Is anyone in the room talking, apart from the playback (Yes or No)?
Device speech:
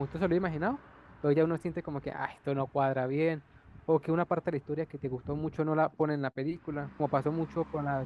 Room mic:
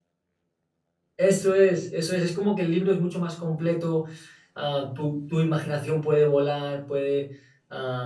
Yes